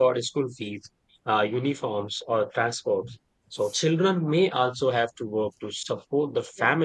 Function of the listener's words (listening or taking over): listening